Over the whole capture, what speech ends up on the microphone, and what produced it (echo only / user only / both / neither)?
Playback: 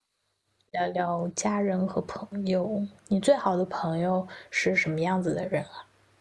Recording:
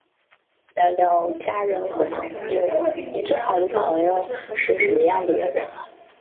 both